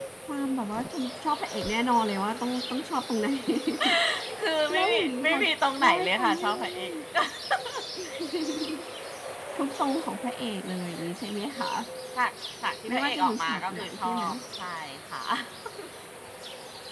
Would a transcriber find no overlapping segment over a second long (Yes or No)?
No